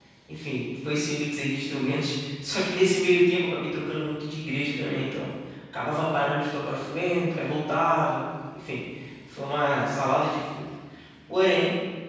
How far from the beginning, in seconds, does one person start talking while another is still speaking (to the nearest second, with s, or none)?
none